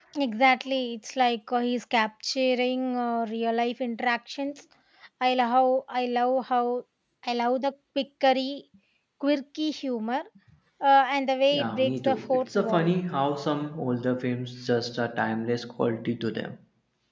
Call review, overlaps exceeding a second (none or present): present